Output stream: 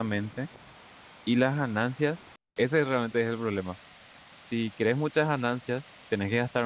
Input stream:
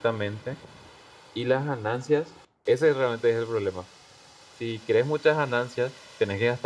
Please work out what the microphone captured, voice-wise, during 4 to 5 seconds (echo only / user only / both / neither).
echo only